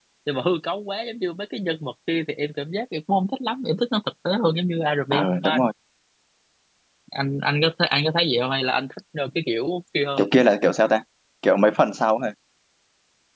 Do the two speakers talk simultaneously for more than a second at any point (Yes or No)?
No